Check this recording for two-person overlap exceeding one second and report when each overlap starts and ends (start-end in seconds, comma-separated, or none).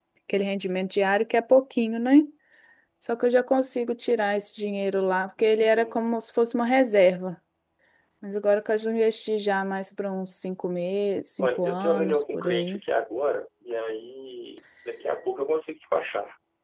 11.4-12.8